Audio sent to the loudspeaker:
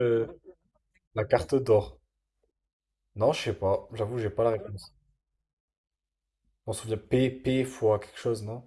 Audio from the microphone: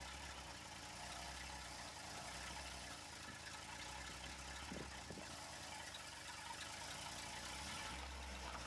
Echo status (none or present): none